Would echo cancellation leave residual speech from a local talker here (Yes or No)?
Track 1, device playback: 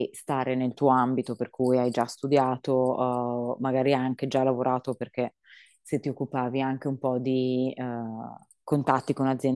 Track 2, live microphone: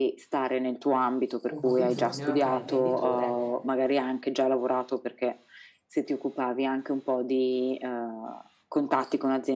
Yes